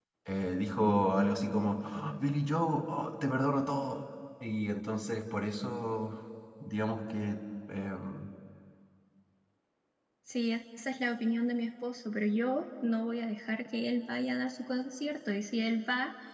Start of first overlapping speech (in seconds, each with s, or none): none